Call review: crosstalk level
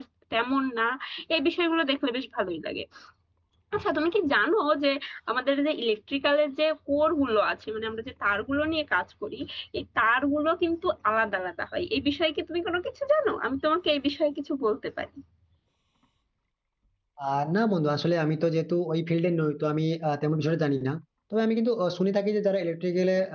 none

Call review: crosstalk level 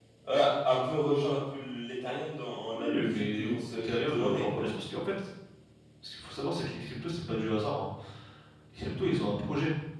present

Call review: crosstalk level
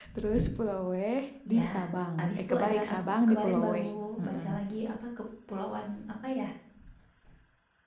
present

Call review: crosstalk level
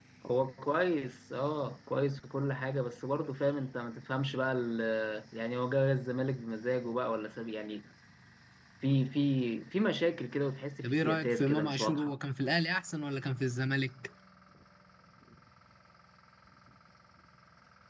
present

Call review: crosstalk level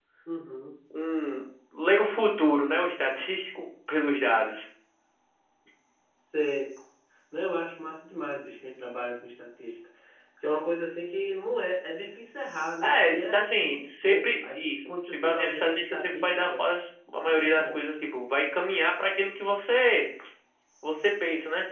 present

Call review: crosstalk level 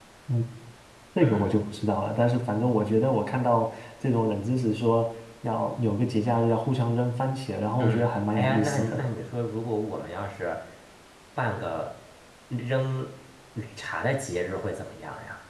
present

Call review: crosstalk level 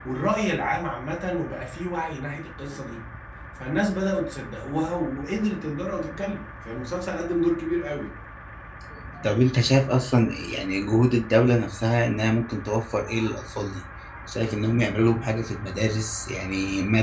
none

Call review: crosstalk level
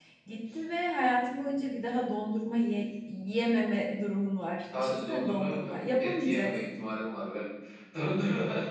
present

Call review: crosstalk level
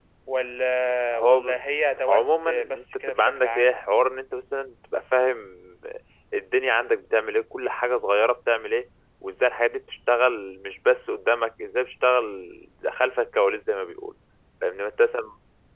present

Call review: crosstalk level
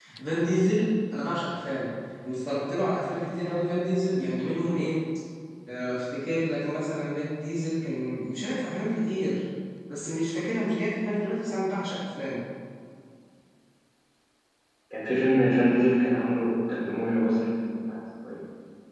none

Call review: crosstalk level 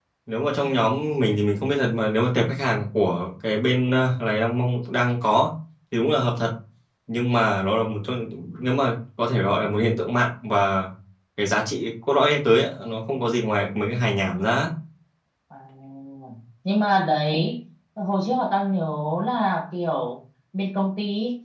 none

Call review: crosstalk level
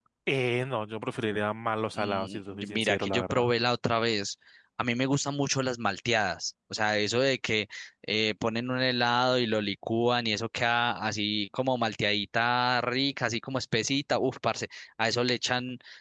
present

